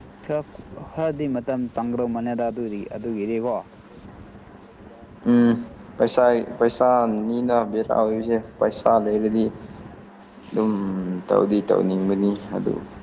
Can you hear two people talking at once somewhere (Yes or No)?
No